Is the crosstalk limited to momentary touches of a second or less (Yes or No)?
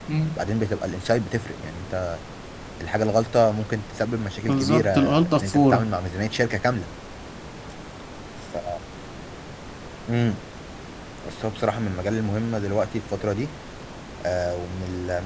No